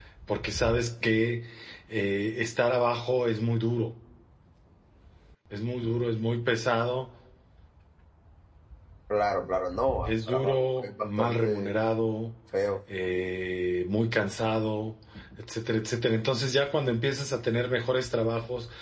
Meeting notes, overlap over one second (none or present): present